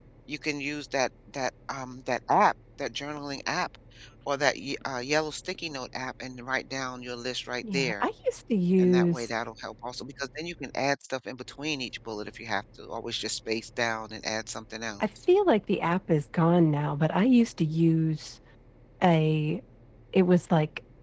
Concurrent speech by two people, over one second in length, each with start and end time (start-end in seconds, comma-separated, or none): none